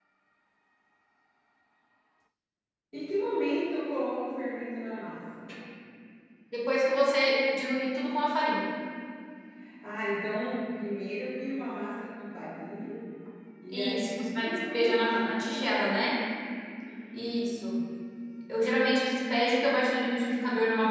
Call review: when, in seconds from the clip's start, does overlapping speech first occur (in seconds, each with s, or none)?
13.7 s